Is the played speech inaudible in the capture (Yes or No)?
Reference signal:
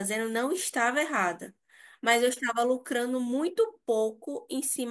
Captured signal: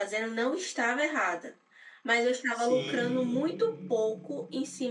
No